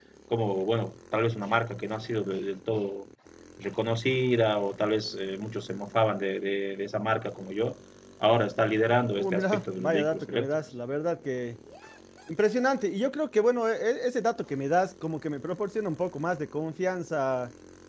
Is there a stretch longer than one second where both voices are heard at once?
Yes, from 9.2 s

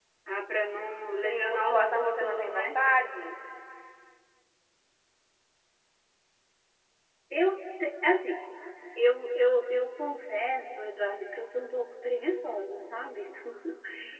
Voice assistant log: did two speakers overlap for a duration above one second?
Yes, from 1.2 s

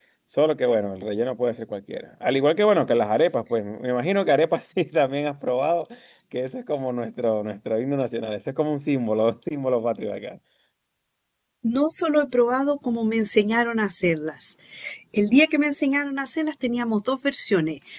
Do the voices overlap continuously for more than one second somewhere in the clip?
No

